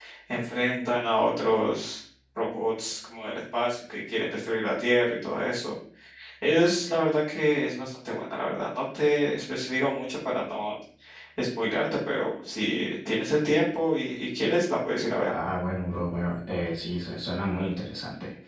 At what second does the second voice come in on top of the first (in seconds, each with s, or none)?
none